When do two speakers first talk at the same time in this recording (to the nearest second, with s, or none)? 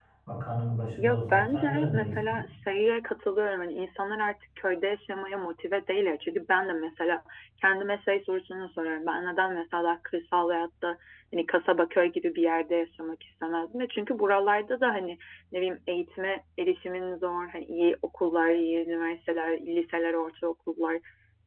1 s